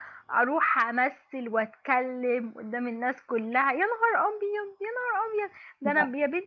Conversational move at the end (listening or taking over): listening